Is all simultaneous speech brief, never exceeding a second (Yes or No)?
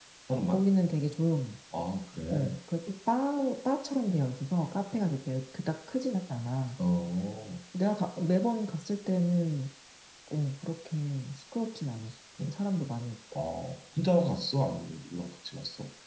Yes